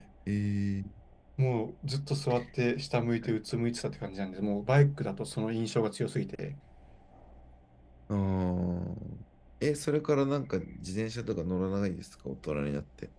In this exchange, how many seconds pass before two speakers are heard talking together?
none

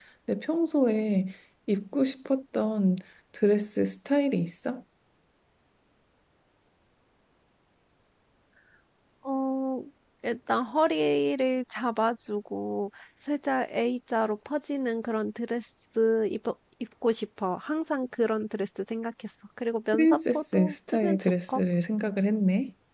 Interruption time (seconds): 19.9 s

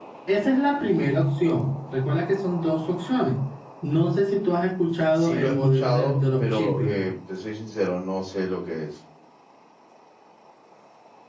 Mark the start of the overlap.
5.2 s

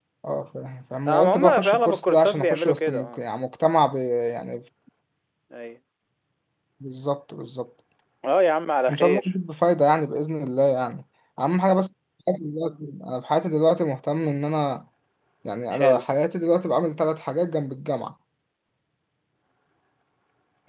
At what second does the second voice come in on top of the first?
1.1 s

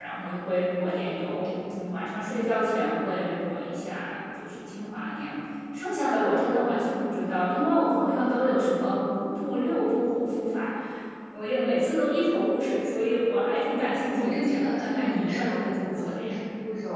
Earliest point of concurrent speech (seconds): 14.2 s

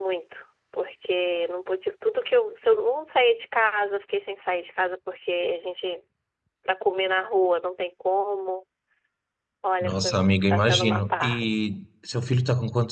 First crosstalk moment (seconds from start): 9.8 s

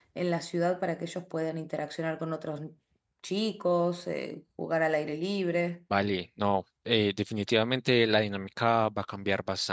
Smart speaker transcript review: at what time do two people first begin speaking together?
none

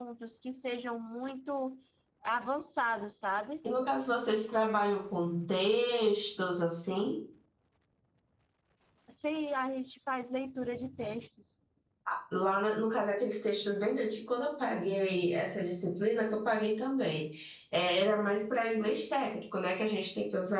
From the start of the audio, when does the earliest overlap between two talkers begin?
none

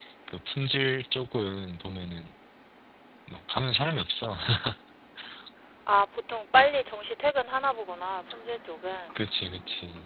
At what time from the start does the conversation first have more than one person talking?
none

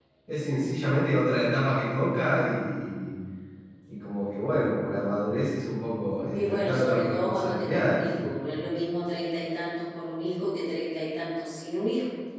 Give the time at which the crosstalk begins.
6.3 s

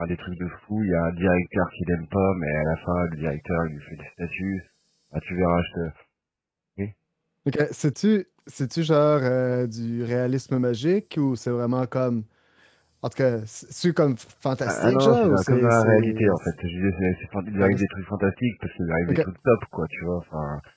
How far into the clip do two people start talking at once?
14.7 s

